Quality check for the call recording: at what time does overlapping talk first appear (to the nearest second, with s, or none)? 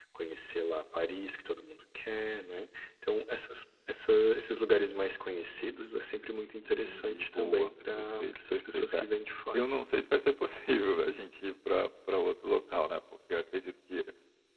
7 s